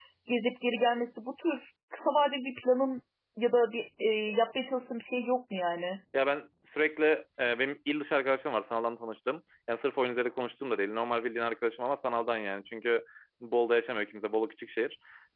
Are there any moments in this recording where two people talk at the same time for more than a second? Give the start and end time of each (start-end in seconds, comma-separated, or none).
none